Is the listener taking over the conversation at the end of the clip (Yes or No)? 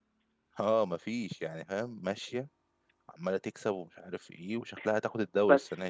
Yes